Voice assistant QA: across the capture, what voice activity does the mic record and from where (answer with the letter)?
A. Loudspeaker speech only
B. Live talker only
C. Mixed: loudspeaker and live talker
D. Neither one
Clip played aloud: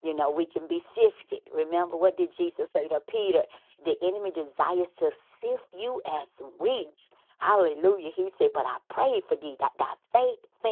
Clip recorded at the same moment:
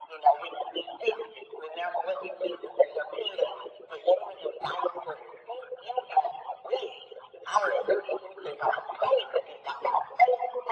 A